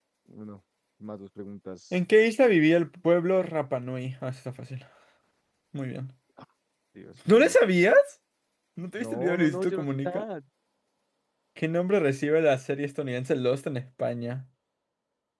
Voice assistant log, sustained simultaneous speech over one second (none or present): present